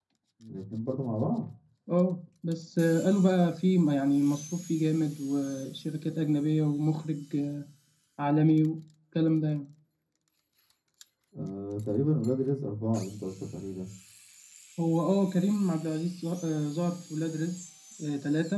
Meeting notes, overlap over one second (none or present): none